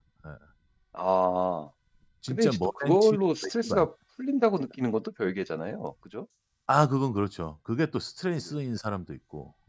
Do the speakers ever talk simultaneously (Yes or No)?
Yes